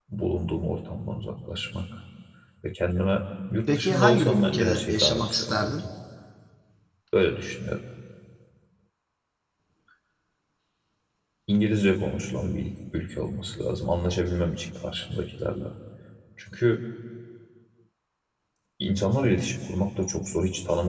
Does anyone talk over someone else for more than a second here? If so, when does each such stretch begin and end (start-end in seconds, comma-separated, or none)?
3.8-5.8